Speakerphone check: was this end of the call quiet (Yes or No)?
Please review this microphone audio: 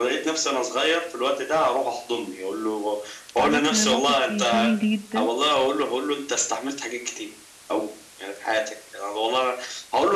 No